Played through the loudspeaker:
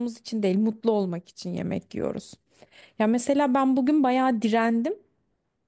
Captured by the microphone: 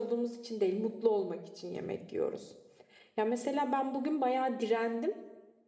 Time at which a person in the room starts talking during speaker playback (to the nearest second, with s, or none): none